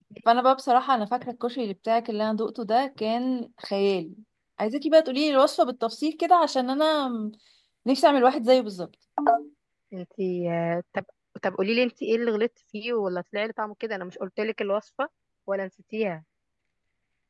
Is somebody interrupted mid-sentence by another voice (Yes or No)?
No